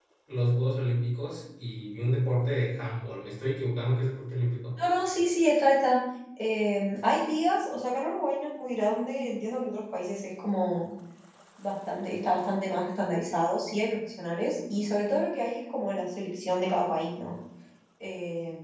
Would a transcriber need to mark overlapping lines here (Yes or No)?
No